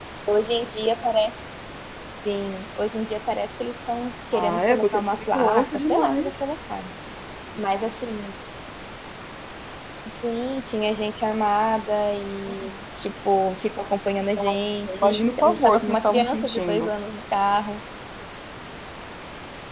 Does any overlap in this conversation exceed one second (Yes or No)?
Yes